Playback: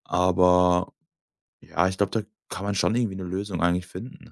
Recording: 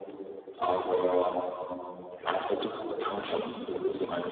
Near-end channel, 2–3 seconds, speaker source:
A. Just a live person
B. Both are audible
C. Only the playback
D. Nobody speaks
C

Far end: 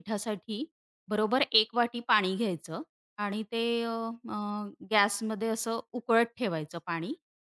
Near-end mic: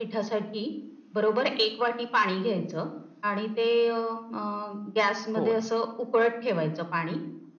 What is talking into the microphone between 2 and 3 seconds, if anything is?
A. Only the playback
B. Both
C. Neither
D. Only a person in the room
A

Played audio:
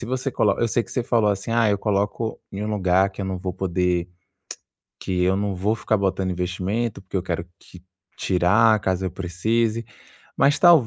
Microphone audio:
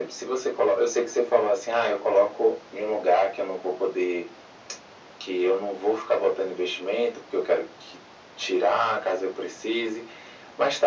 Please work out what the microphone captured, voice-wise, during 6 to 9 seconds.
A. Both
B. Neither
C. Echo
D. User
C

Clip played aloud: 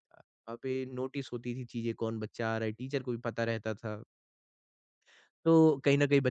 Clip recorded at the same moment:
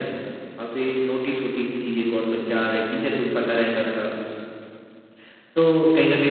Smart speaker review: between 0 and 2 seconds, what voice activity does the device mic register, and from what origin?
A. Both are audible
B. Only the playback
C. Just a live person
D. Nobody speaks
B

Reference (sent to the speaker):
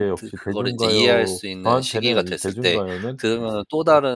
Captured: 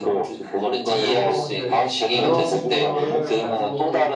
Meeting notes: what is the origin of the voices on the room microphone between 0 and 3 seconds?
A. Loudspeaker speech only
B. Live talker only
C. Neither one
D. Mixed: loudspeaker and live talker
D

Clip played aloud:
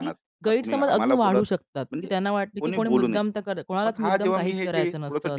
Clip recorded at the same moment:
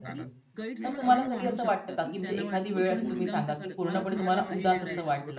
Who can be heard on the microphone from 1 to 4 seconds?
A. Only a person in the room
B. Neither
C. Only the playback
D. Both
D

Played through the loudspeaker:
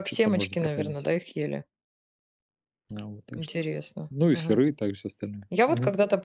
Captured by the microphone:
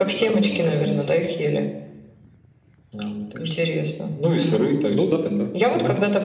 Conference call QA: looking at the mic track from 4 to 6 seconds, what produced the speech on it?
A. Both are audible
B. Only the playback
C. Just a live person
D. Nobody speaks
A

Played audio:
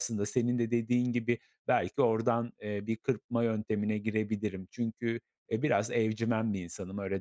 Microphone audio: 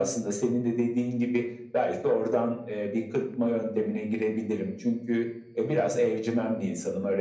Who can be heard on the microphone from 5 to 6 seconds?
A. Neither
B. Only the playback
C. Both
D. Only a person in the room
B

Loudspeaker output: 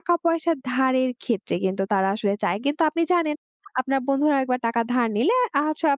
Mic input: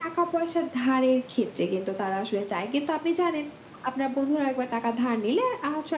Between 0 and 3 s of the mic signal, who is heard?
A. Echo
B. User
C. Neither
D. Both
A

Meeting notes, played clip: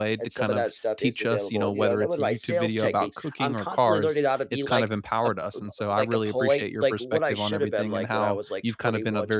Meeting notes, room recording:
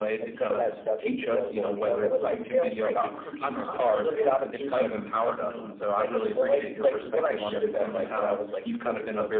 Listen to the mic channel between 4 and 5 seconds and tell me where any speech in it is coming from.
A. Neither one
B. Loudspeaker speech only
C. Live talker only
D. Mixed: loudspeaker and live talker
D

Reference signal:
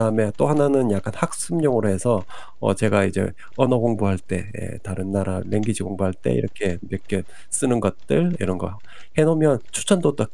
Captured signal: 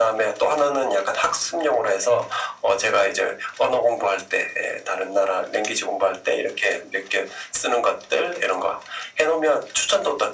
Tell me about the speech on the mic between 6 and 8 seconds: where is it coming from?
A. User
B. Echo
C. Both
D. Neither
B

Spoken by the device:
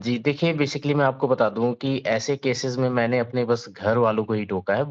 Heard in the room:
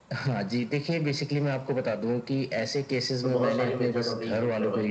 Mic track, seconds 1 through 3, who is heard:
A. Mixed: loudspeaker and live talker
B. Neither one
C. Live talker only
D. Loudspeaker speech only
D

